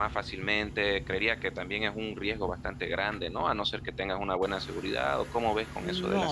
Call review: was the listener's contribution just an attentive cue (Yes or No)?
No